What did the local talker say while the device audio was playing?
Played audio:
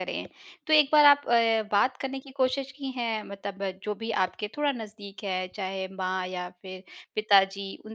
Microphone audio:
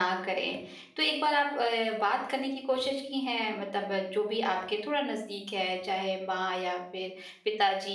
none

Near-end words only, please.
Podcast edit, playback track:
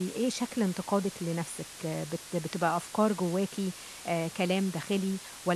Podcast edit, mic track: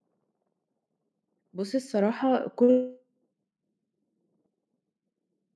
بُصّي الصراحة كُلّه

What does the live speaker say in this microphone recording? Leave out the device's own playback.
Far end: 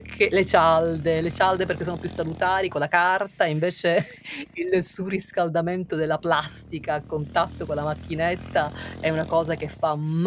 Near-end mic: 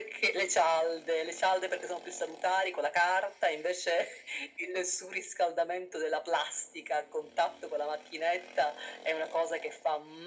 none

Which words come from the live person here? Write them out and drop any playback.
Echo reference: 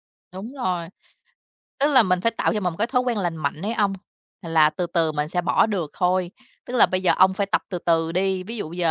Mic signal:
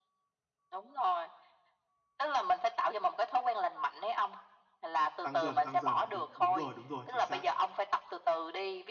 Tăng dần, tăng dần. Đúng đúng rồi, đúng rồi, chính xác.

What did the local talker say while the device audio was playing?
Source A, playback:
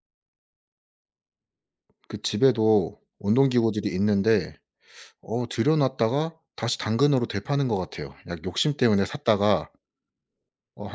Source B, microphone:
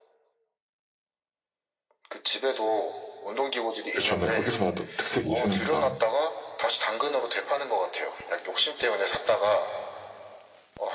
그쵸. 네 휴게소마다 특색이 있으니까.

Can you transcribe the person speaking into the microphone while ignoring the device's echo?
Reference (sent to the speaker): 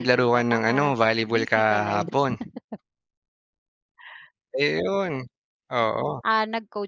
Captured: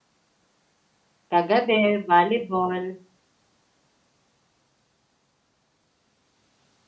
Kagabi volleyball.

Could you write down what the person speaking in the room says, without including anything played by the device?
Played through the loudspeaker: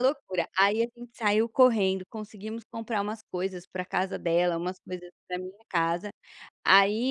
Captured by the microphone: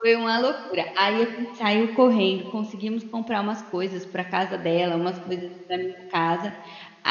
none

